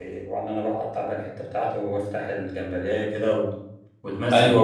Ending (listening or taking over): taking over